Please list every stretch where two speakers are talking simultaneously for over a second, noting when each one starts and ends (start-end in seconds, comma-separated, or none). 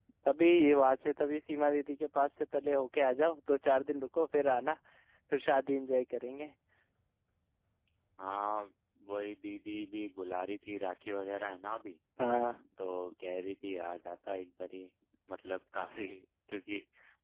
none